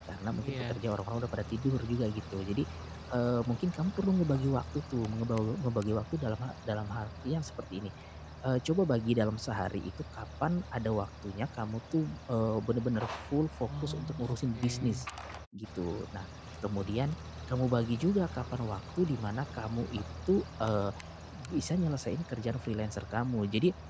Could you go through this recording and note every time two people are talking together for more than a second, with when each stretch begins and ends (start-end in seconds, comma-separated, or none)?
13.7-15.0